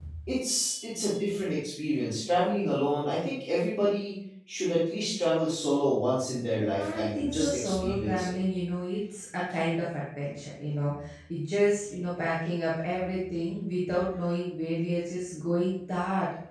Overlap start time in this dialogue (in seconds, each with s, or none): 6.5 s